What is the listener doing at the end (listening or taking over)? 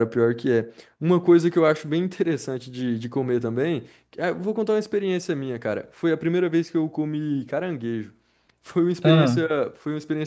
listening